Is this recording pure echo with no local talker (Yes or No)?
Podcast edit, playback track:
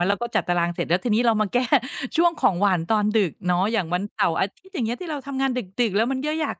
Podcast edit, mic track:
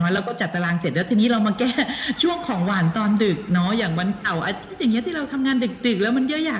Yes